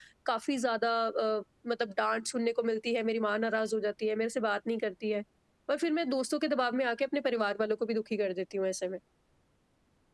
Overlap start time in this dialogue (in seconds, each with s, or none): none